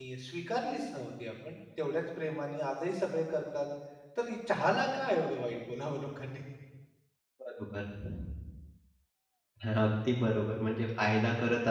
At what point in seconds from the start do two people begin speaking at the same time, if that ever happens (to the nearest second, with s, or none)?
none